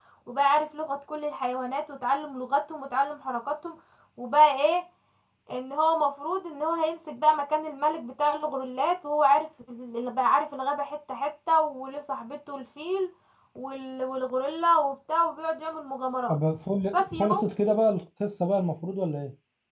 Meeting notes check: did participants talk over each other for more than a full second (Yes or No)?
No